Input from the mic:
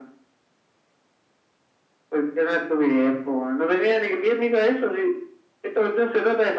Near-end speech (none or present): none